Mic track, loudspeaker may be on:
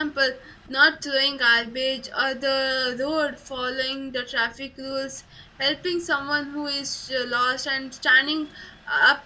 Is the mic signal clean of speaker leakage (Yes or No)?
Yes